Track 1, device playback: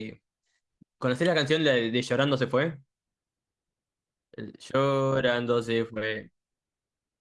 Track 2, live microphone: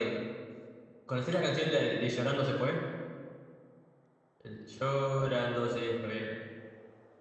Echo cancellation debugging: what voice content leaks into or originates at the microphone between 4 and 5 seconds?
echo only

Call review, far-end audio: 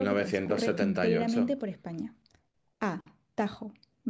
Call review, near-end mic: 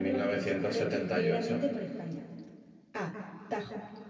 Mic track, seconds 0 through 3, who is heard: echo only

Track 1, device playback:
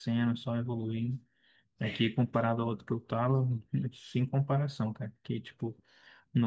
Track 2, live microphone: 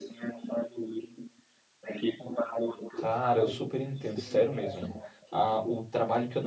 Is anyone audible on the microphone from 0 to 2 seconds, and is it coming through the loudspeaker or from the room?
echo only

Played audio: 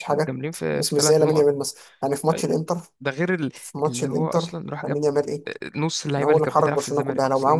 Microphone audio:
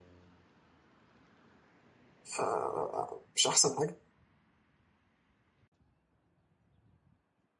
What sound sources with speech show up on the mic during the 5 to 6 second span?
neither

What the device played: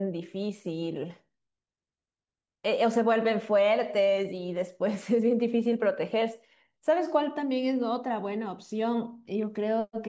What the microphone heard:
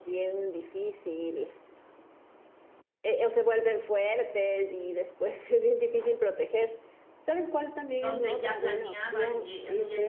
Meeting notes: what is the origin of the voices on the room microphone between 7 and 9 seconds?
both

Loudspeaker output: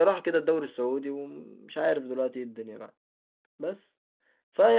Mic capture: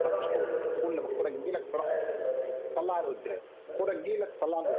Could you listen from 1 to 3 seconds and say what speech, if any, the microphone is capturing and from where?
both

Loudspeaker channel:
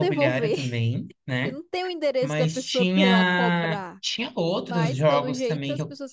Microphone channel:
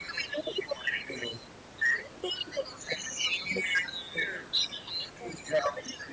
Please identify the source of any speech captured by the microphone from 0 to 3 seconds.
echo only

